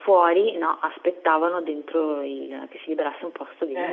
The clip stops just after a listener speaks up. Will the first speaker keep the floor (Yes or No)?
No